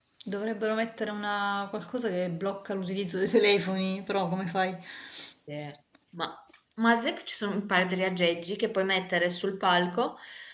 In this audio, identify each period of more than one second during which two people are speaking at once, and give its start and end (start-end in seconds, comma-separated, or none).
none